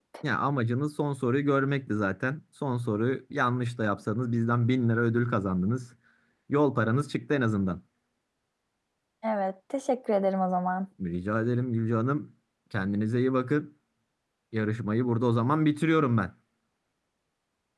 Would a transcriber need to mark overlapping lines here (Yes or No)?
No